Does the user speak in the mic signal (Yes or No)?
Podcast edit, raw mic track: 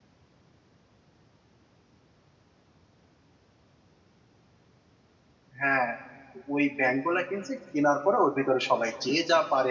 Yes